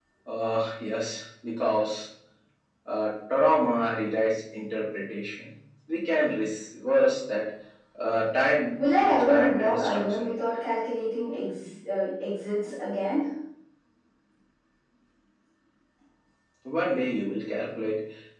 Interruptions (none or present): present